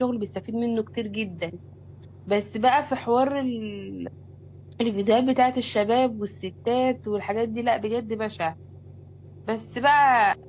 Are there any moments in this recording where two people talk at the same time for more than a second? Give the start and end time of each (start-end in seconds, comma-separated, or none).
none